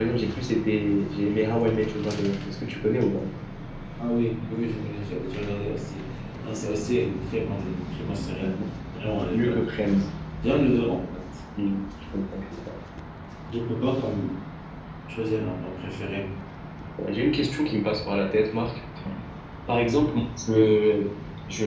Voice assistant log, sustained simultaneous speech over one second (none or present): none